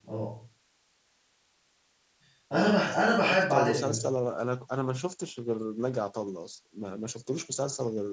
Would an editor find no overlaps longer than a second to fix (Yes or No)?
No